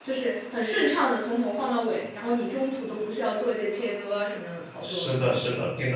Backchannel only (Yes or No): No